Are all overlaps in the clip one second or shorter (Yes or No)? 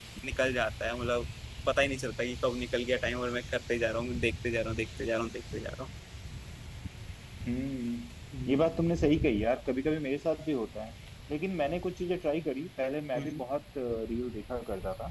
Yes